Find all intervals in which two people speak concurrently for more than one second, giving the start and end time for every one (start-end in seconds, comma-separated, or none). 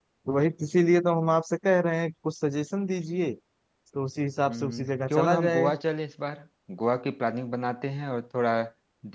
4.5-5.7